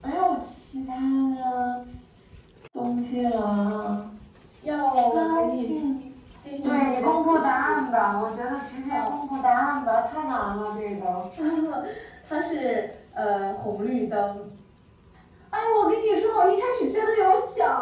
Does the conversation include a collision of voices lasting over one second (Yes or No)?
Yes